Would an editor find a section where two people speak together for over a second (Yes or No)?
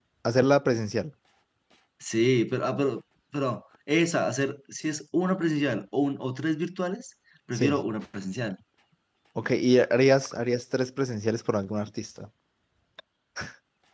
No